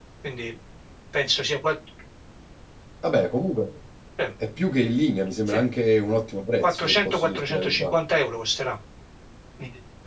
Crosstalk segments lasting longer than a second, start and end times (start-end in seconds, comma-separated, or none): 6.6-8.0